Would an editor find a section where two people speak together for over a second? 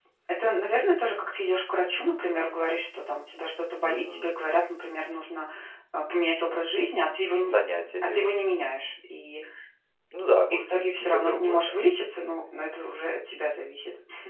Yes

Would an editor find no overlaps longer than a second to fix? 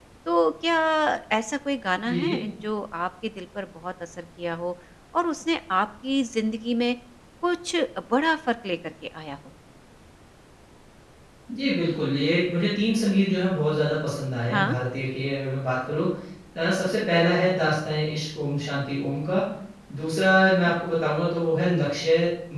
Yes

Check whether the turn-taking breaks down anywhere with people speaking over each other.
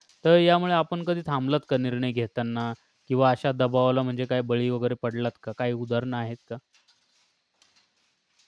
No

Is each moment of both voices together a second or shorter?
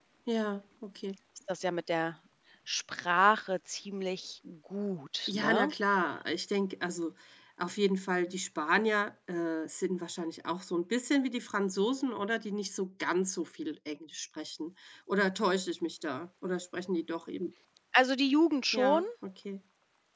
Yes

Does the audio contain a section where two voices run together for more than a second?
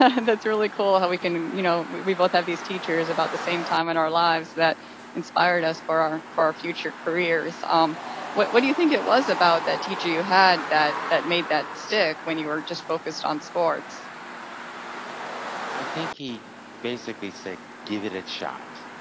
No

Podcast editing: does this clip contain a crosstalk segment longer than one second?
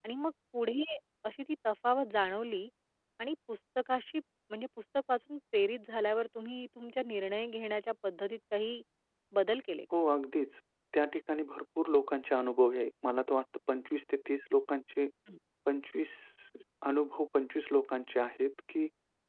No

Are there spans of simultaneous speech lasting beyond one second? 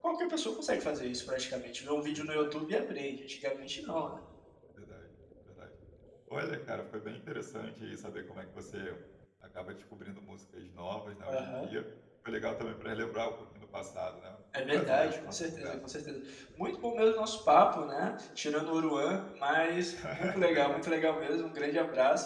Yes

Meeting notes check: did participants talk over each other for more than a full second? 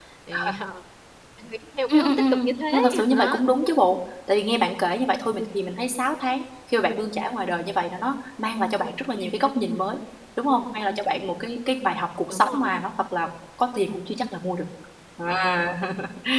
Yes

